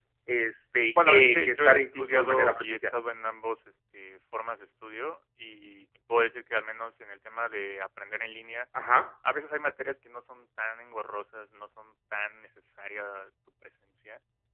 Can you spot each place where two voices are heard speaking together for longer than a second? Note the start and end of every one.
1.0-2.8

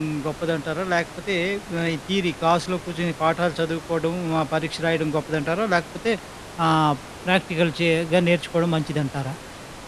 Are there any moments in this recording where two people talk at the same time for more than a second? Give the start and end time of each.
none

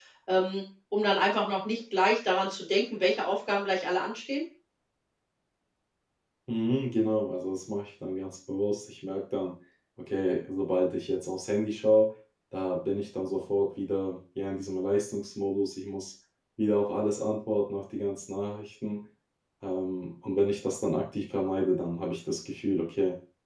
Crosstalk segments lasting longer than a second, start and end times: none

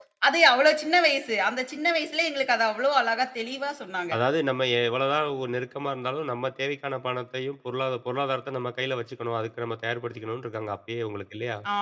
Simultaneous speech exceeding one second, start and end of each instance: none

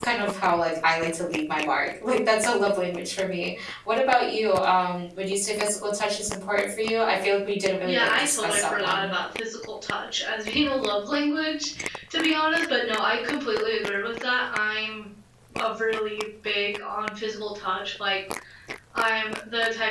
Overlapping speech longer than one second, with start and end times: 7.8-9.1

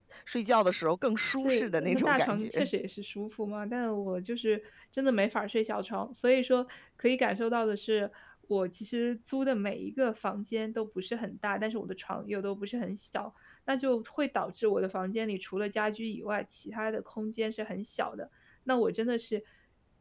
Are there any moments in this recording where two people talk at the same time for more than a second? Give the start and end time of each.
1.4-2.7

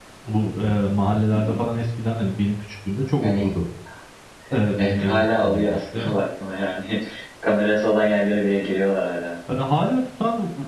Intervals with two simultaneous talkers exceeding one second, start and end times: 4.8-6.1

